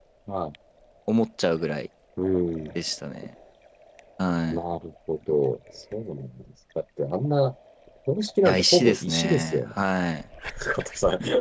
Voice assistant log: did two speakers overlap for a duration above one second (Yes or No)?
Yes